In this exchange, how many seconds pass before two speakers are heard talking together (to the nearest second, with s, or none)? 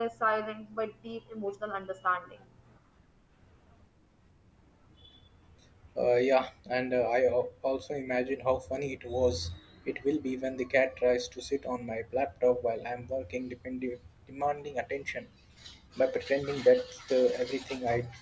none